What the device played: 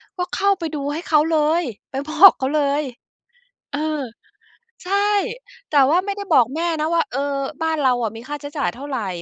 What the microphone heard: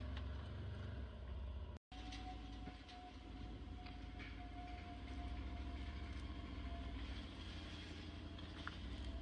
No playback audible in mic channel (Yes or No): Yes